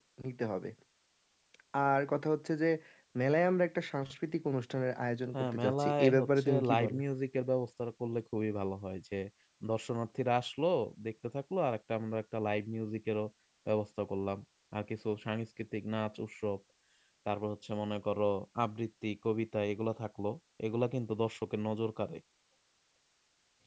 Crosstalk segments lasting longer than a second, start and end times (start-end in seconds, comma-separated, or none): 5.3-7.0